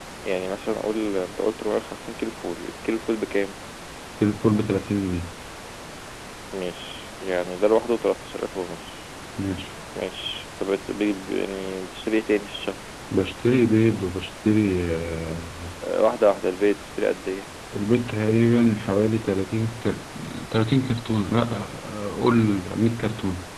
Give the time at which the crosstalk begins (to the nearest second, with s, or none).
none